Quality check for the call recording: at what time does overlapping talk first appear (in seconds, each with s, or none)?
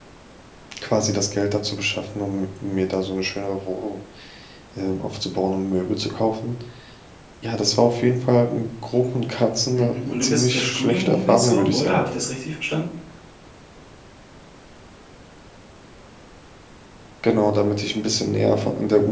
9.7 s